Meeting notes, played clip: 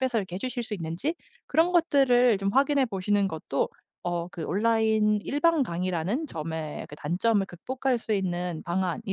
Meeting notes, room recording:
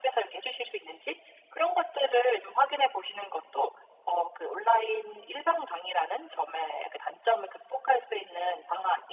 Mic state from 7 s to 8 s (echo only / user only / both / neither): echo only